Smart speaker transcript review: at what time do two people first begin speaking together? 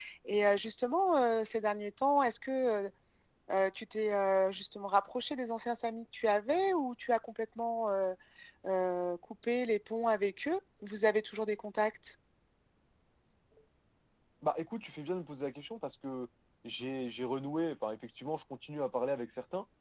none

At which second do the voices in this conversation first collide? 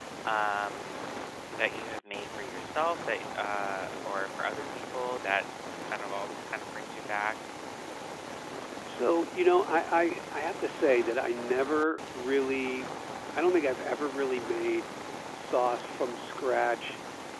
none

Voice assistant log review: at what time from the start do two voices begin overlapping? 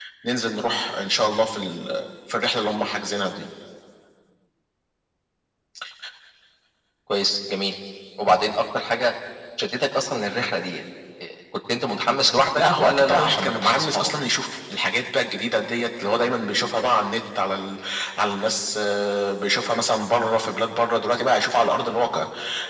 12.6 s

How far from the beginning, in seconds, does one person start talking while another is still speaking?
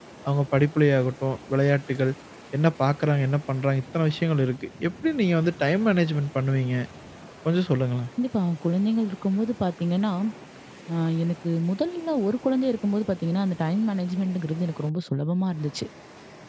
none

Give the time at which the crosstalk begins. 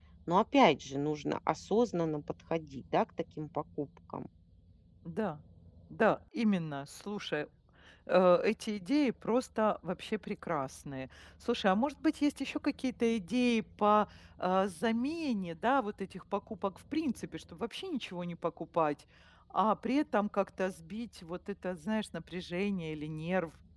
none

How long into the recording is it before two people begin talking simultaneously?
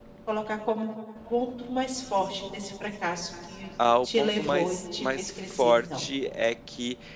4.0 s

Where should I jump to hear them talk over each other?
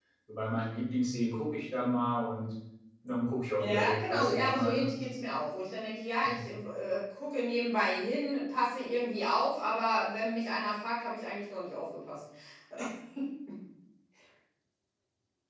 3.6 s

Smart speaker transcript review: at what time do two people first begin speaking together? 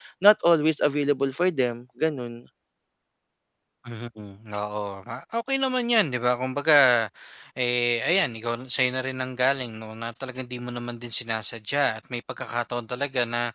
none

